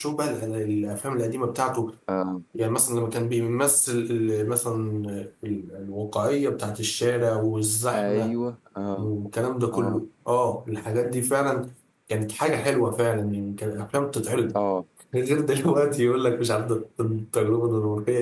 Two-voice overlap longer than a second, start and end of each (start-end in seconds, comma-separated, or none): none